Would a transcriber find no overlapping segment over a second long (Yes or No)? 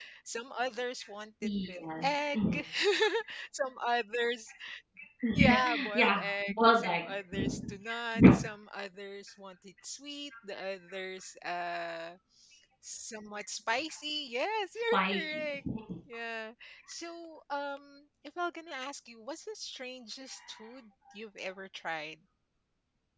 No